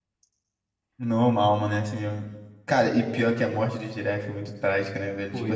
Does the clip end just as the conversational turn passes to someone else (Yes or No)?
No